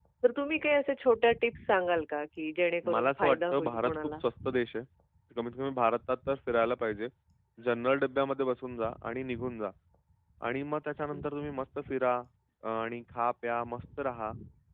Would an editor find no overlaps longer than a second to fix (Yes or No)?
No